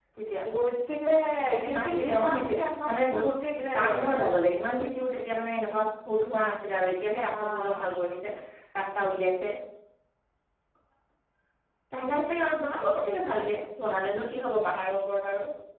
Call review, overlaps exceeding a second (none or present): present